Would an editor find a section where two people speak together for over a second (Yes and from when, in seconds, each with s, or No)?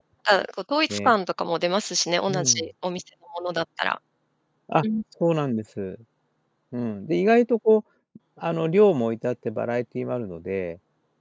No